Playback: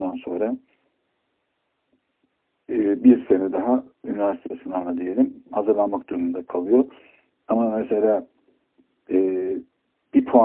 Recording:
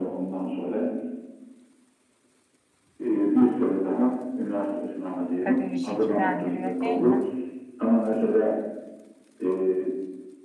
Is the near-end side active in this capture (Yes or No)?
Yes